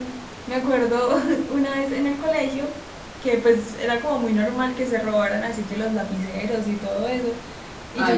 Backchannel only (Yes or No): Yes